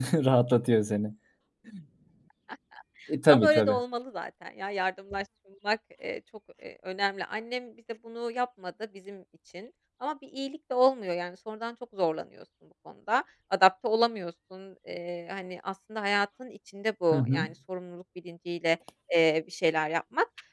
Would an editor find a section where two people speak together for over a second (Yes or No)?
No